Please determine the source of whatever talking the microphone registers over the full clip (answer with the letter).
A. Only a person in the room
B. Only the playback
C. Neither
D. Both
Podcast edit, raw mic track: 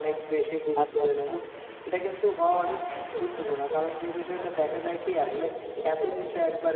D